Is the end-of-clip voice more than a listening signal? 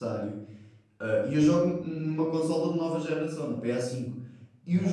No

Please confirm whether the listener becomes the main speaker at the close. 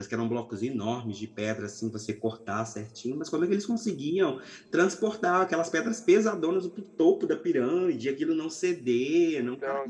No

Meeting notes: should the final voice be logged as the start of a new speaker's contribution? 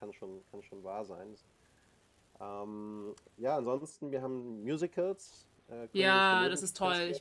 Yes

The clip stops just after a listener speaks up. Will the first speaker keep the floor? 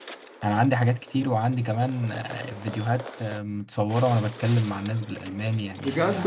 No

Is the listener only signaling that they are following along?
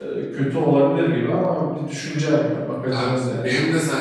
No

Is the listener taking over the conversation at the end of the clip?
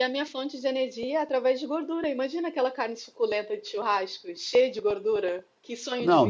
Yes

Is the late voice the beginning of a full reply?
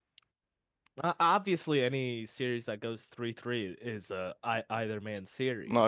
Yes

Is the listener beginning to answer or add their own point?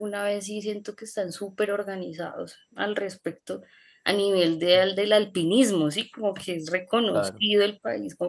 No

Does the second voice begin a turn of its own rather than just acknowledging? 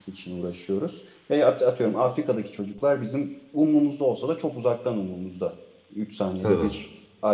No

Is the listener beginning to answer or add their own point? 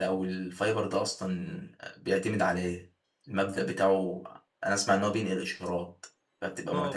Yes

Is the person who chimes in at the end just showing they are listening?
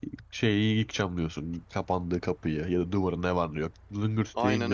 No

